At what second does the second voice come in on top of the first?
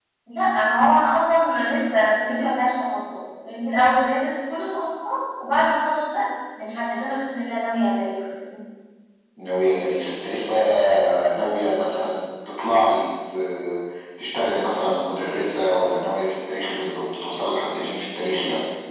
none

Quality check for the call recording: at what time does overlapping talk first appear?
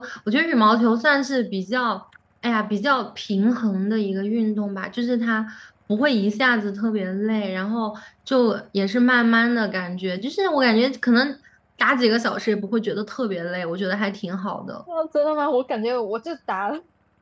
none

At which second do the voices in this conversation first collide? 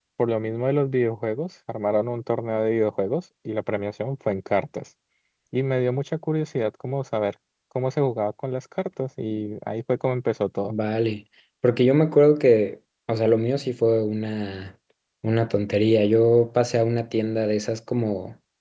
none

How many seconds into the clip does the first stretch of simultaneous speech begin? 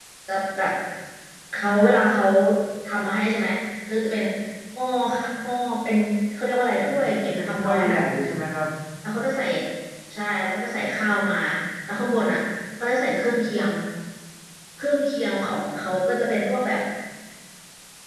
6.7 s

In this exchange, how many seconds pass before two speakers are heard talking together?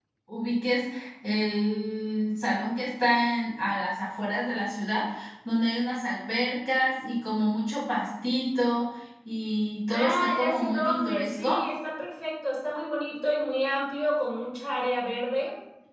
9.9 s

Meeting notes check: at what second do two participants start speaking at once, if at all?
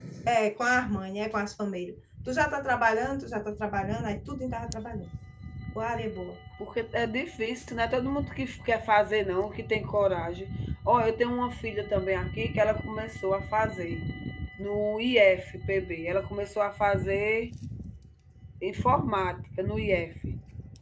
none

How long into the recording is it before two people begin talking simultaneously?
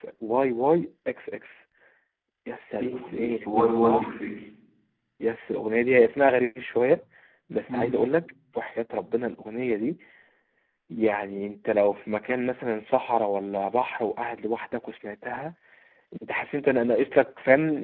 2.8 s

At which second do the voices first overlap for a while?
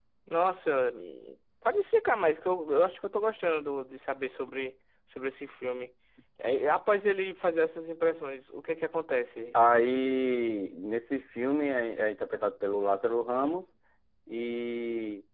none

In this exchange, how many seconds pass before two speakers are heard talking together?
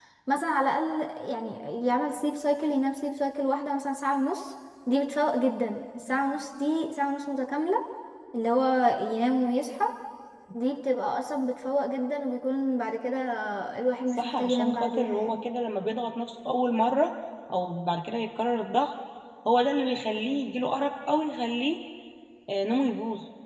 14.1 s

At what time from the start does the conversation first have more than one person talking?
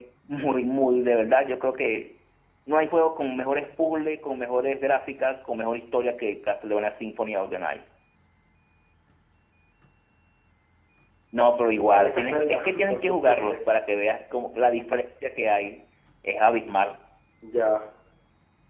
11.9 s

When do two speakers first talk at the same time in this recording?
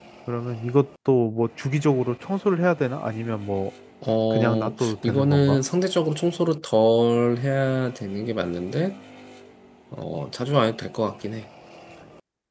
4.3 s

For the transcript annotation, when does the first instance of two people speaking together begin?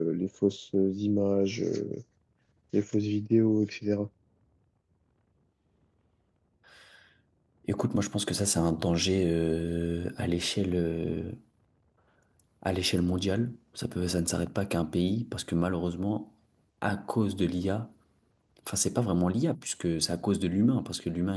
none

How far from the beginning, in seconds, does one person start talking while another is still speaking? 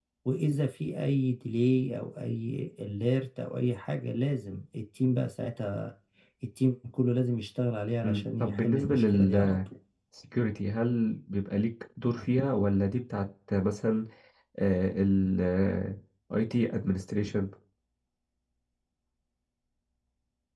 8.0 s

